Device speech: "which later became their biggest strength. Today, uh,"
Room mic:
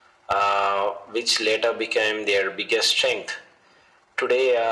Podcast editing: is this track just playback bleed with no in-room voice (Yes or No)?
Yes